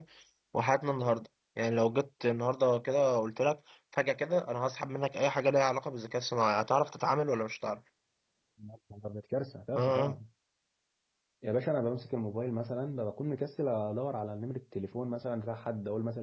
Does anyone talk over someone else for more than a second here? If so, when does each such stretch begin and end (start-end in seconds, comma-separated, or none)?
none